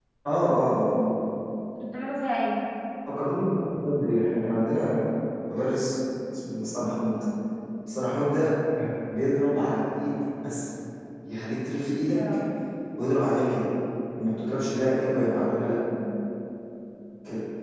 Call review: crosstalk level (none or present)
none